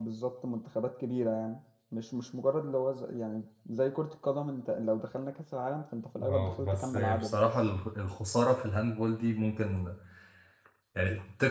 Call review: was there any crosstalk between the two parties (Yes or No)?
Yes